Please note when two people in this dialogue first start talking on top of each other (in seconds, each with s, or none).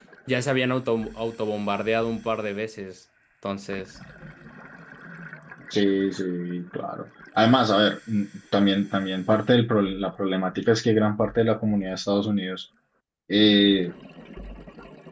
none